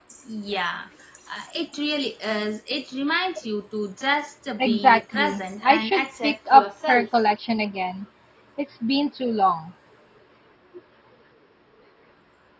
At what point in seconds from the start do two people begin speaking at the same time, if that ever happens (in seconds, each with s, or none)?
4.6 s